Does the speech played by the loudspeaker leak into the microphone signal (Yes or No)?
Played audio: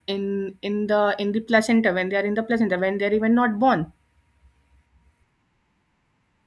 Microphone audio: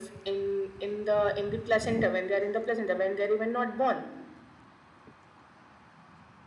Yes